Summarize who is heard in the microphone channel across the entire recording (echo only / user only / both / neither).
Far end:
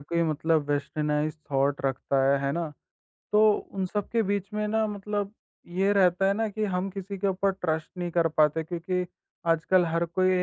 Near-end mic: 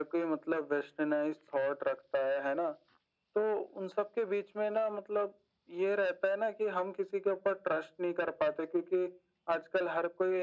echo only